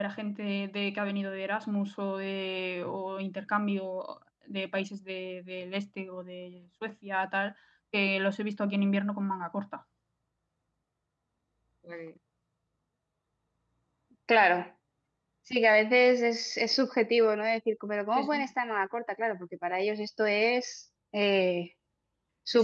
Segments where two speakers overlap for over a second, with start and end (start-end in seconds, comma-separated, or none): none